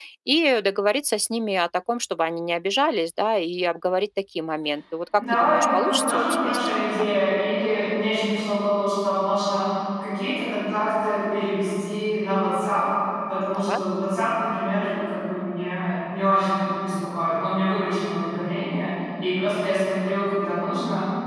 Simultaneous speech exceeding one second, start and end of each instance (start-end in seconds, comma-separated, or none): 5.2-7.1